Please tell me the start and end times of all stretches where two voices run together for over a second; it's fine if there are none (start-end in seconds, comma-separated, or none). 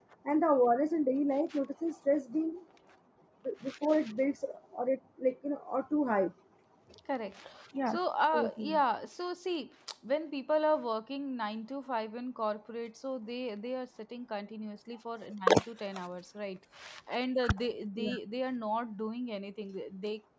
none